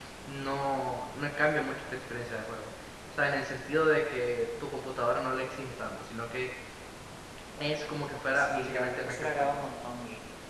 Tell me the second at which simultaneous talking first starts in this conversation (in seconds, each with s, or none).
8.3 s